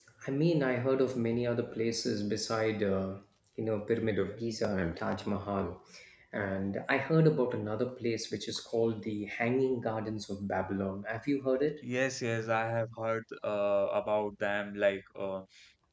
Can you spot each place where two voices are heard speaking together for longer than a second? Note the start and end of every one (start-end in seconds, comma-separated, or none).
none